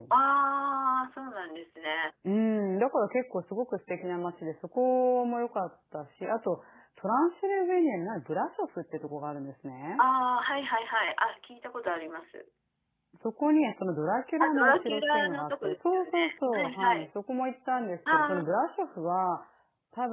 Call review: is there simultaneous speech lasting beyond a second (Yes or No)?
Yes